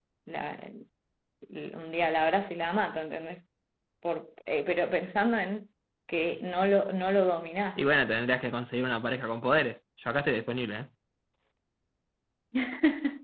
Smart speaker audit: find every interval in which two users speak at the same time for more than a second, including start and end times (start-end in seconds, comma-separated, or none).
none